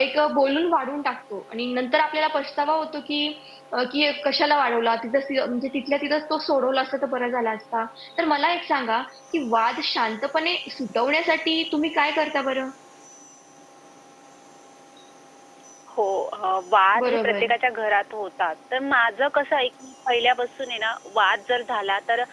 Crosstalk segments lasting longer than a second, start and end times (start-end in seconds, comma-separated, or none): none